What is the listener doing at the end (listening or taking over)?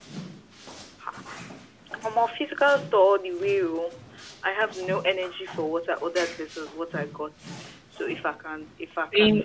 listening